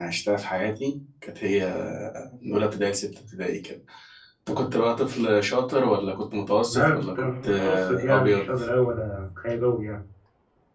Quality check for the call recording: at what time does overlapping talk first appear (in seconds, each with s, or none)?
6.7 s